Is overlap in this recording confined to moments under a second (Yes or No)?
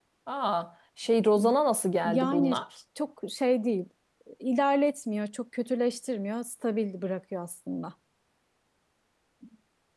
Yes